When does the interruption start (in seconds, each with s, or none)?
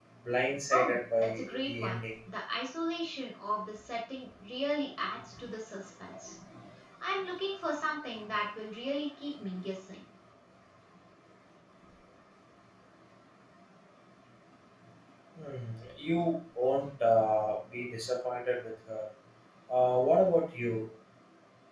0.7 s